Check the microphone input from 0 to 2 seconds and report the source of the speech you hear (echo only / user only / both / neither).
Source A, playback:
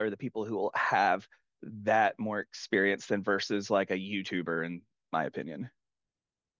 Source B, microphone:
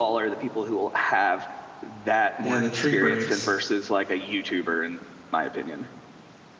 echo only